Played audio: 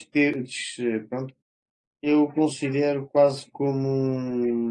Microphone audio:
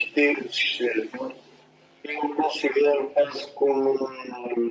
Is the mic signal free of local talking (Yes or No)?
Yes